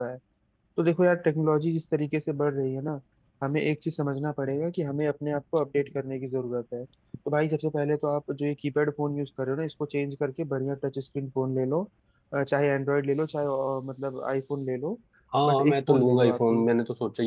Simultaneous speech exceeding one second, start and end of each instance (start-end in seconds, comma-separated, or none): 15.5-16.7